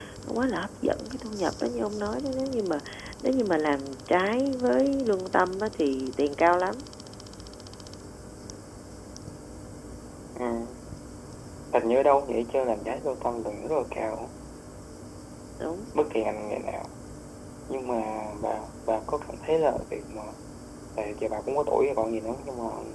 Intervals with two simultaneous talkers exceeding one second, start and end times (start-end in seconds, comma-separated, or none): none